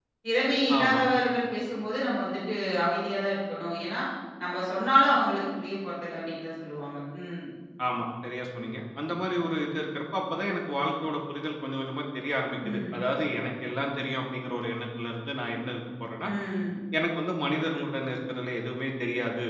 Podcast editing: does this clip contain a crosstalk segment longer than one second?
No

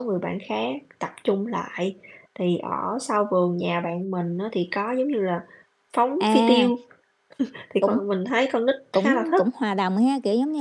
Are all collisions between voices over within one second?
Yes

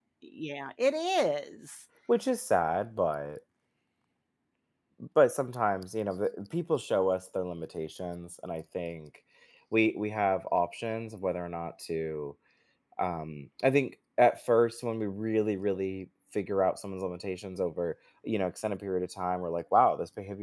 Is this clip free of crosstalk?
Yes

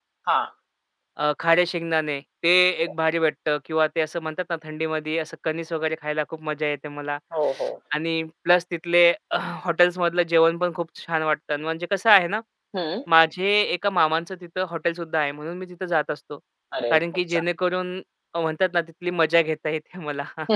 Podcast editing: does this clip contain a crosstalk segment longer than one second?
No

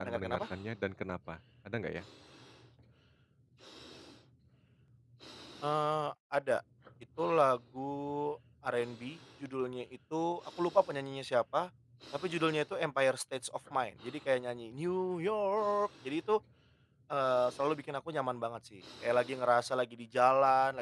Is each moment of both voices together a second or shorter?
Yes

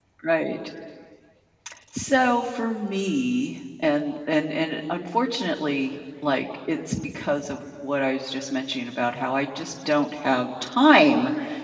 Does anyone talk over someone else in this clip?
No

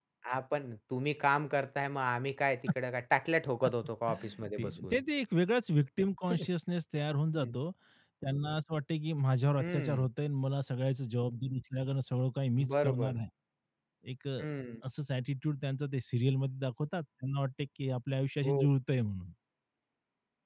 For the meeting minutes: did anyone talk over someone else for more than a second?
No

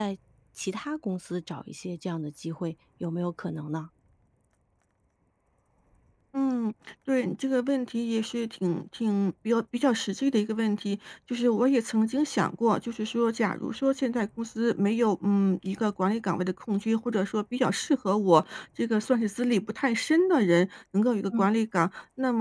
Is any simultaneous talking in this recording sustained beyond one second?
No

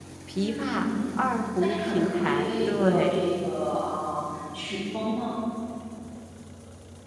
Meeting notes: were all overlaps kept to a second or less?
No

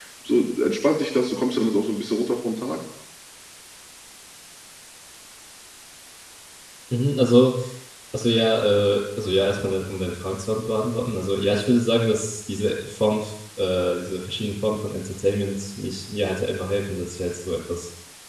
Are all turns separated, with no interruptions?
Yes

